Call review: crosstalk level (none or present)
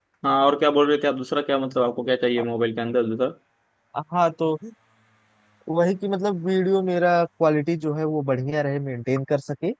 none